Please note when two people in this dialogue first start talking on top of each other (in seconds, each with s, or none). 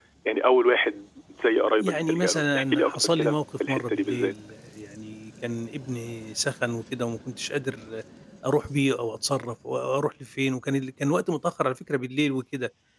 1.8 s